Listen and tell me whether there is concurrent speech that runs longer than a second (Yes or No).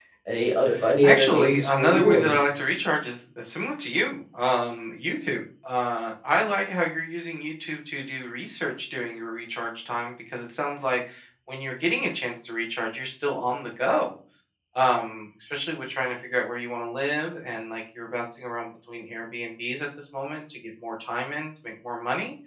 Yes